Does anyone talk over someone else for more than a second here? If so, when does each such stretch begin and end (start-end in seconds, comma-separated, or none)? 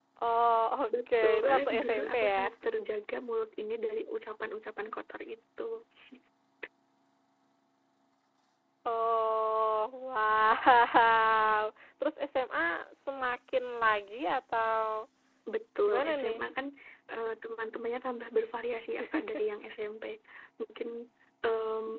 1.1-2.4